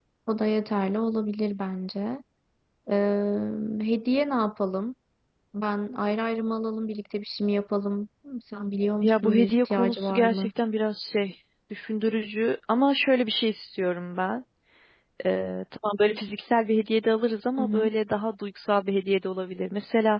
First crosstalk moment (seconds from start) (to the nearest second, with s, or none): 9 s